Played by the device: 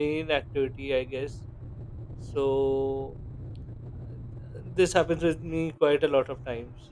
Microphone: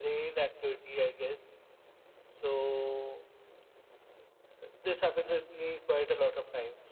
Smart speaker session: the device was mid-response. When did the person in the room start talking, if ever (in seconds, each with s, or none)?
none